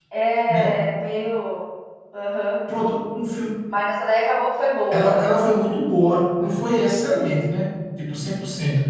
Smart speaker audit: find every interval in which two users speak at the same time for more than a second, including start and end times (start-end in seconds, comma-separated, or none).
none